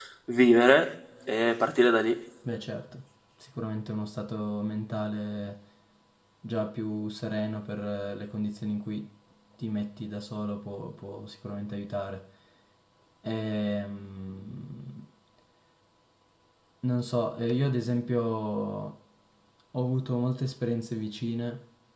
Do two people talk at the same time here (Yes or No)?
No